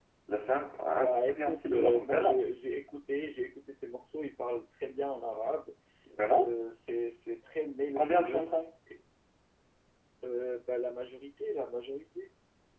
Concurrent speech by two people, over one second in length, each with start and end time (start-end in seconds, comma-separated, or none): 0.9-2.4